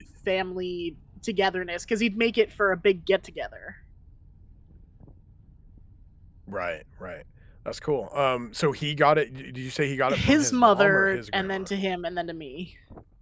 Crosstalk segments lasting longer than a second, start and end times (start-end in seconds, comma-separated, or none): 10.1-11.7